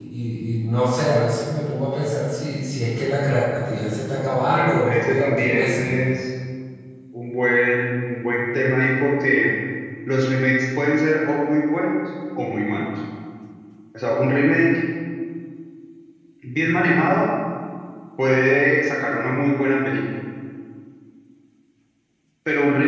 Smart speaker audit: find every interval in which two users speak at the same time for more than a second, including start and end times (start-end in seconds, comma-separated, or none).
4.6-5.9